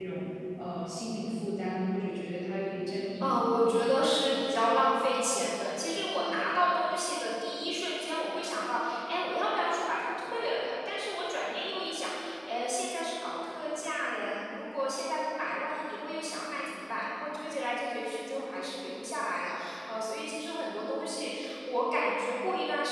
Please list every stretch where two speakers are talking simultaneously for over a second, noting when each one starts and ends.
none

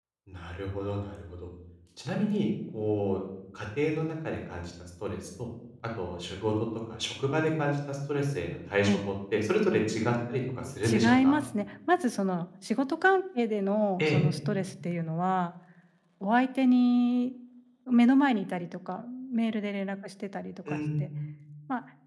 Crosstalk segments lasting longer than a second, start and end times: none

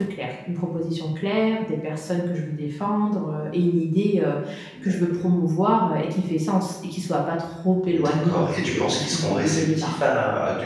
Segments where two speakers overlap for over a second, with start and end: 7.9-10.0

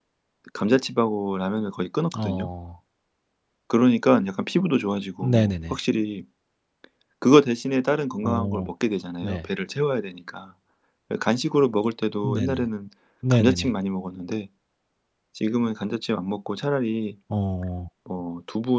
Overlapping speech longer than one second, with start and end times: none

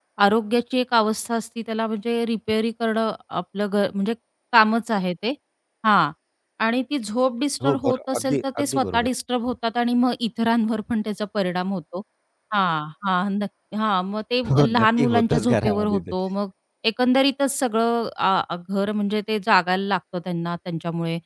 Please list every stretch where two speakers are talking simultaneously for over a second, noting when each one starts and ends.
7.6-9.1, 14.7-16.0

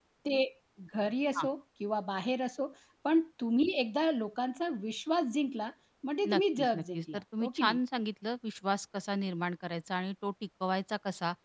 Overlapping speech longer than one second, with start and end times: 6.3-7.8

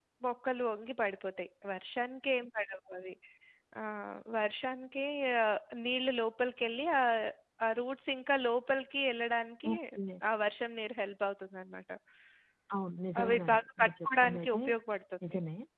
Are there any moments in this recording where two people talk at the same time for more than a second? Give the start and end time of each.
13.2-14.6

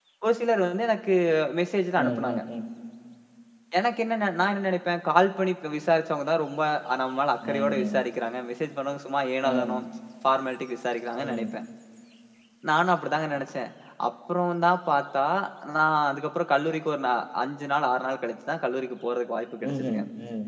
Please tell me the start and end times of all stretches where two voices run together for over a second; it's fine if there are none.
none

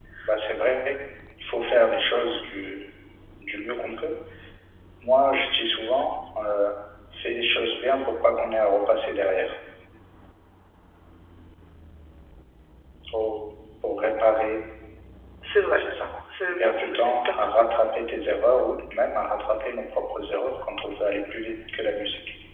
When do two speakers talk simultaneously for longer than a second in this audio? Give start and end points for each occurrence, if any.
16.6-17.9

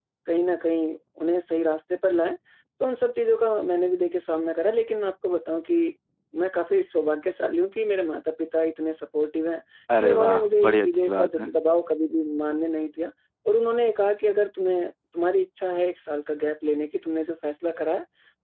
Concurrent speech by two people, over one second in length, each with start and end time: 10.0-11.5

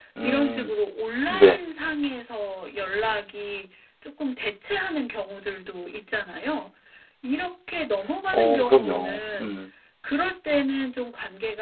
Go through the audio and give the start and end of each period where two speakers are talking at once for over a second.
8.3-9.5

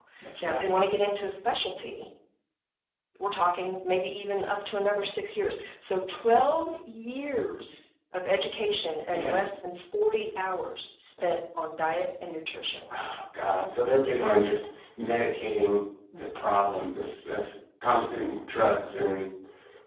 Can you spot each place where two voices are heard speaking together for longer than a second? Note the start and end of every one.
none

